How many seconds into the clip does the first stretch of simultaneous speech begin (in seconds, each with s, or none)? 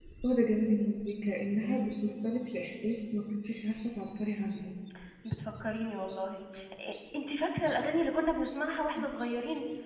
none